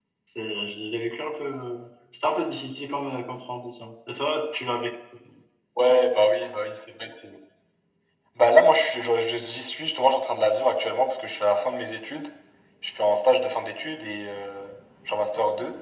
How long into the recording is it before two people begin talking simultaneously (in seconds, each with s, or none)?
none